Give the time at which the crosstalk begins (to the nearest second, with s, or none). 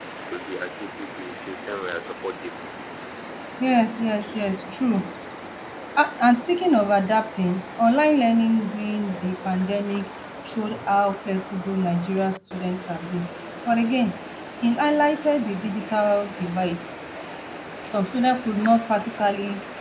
none